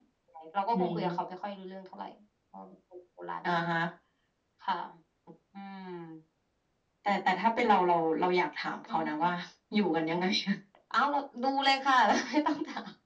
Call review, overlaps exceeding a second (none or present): none